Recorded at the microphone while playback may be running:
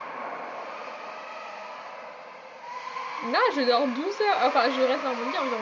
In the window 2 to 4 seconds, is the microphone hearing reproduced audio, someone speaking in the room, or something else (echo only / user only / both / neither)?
user only